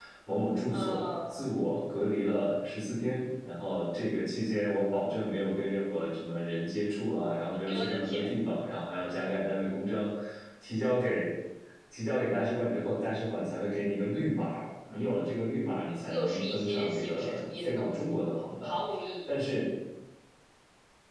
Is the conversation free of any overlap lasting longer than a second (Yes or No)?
No